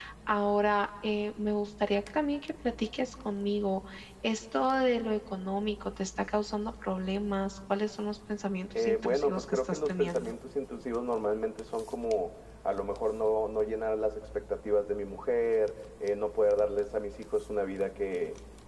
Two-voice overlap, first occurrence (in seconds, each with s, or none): 8.8 s